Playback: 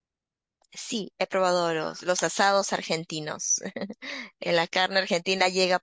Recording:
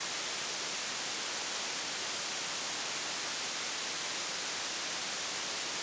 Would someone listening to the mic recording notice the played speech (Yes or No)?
No